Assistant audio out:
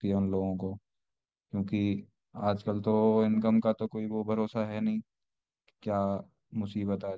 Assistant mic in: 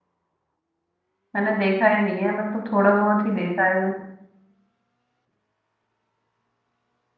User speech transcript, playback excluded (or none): मैंने देखा ही नहीं है मतलब थोड़ा बहुत ही देखा है मैंने